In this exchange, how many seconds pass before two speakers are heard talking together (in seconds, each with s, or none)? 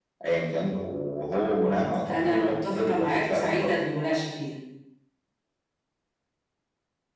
1.6 s